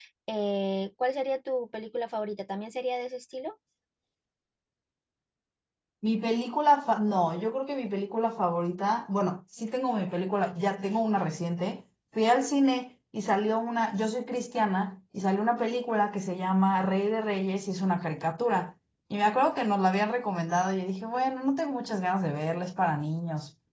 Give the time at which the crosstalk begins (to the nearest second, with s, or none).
none